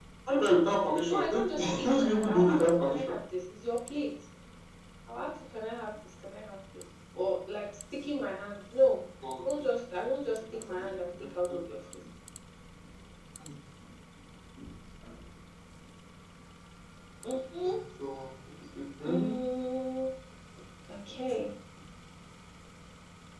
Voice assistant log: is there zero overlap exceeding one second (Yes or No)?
No